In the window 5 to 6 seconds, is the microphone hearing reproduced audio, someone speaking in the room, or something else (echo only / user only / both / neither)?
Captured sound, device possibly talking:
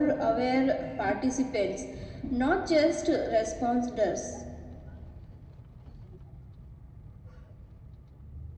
neither